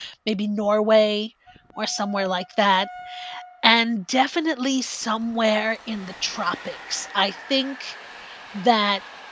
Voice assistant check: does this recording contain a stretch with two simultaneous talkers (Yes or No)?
No